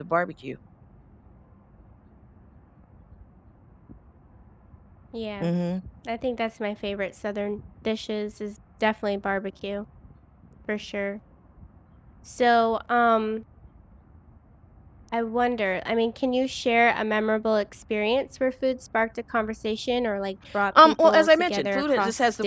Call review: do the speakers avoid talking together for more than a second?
No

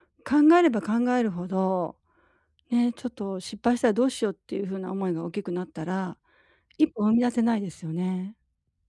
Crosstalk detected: No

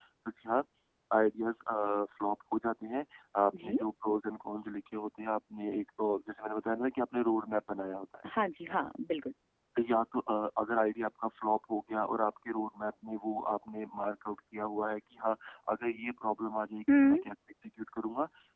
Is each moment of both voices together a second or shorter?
Yes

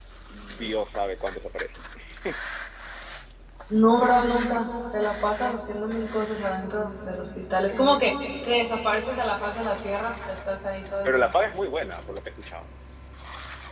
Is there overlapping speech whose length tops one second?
No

